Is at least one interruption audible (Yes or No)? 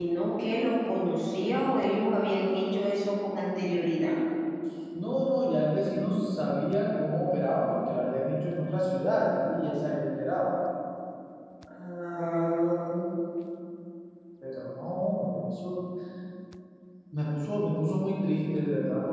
No